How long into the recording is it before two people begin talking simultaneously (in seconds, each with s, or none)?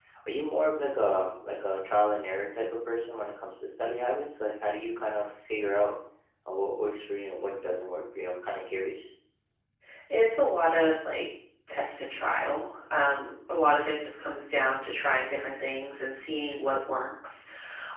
none